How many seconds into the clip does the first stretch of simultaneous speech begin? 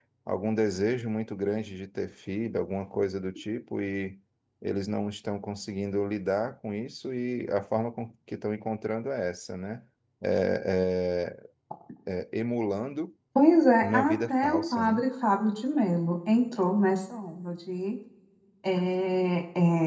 13.8 s

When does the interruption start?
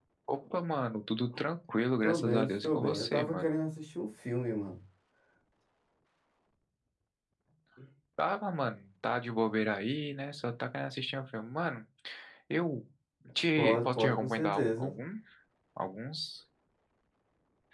2.0 s

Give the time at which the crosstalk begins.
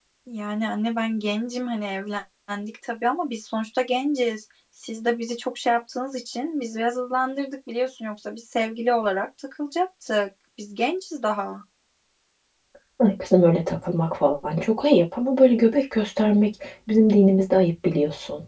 none

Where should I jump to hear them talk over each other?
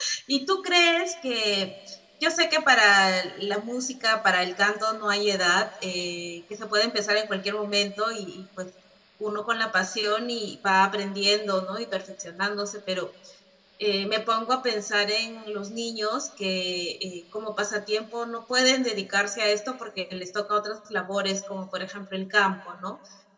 none

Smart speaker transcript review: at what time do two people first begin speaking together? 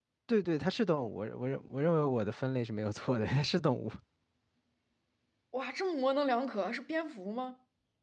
none

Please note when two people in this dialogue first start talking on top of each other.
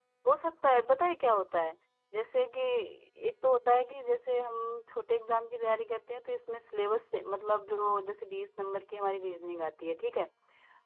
none

